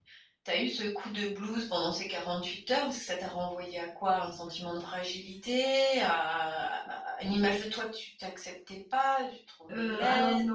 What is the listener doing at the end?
taking over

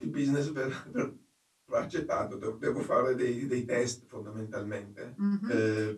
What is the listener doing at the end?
taking over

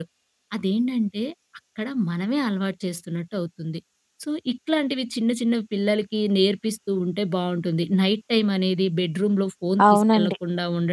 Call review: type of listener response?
listening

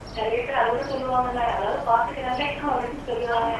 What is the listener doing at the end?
taking over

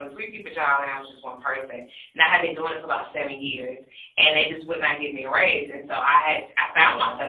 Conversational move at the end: listening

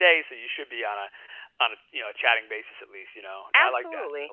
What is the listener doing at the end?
taking over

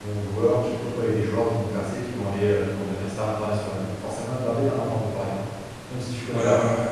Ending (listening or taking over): taking over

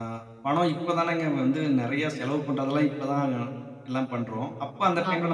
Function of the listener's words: listening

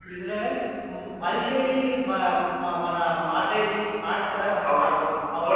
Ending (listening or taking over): taking over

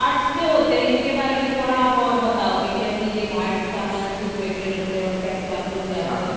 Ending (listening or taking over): taking over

